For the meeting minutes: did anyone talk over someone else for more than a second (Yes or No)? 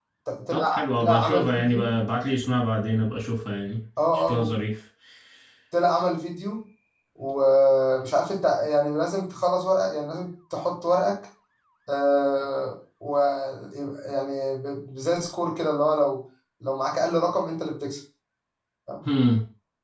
Yes